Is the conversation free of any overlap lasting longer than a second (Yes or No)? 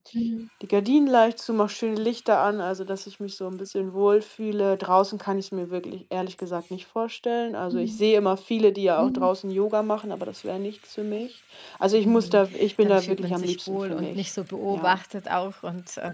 No